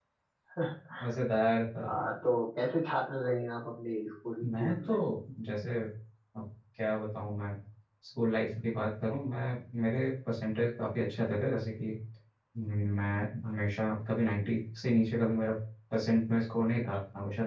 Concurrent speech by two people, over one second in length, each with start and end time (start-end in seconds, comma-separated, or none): none